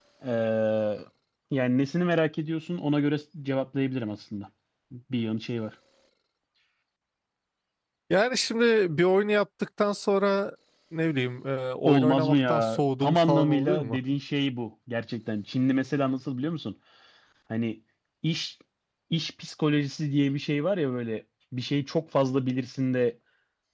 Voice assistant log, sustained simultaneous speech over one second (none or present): present